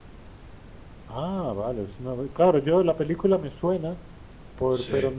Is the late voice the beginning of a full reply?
No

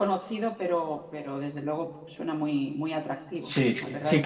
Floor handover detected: Yes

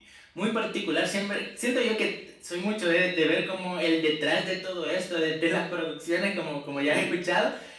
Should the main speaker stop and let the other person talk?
No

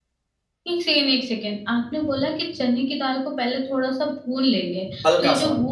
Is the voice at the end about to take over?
No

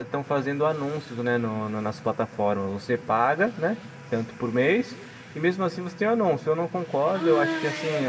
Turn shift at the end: Yes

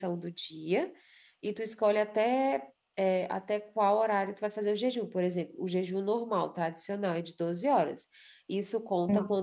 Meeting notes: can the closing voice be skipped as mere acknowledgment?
Yes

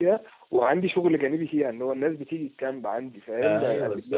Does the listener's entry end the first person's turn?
No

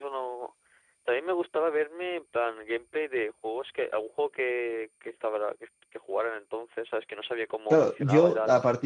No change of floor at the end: No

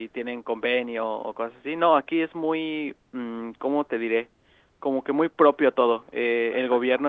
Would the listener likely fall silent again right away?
Yes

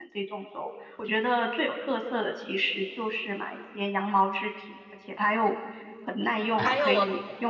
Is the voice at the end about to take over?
Yes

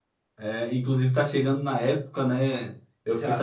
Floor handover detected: No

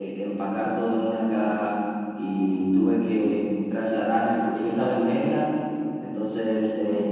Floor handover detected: No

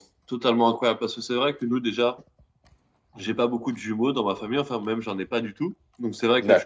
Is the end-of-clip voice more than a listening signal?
No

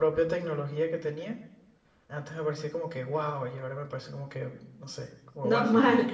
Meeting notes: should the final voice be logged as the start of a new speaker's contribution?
Yes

